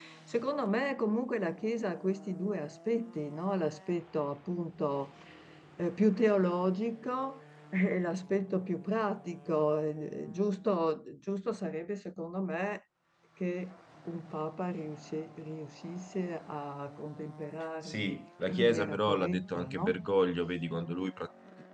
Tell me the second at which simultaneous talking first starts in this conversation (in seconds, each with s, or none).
17.8 s